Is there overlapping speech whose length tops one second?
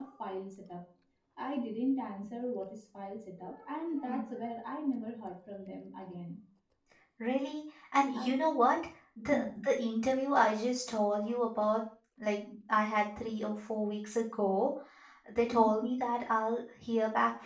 No

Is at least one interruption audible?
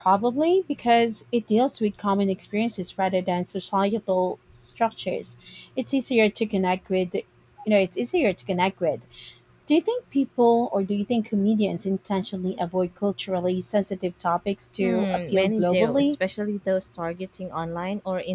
Yes, from 14.8 s

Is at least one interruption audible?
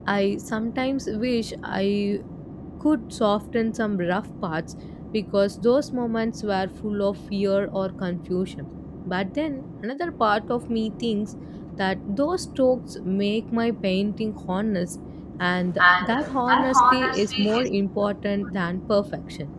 Yes, from 15.8 s

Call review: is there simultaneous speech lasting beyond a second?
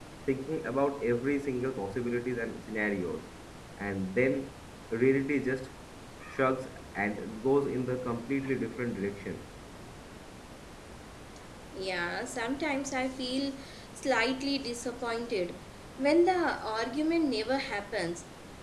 No

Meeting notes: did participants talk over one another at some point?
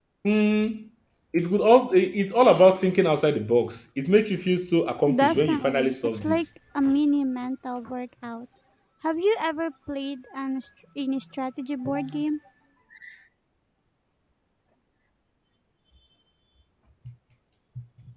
Yes, from 5.2 s

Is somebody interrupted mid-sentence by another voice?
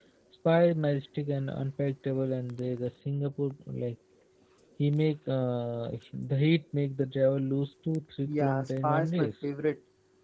Yes, from 8.2 s

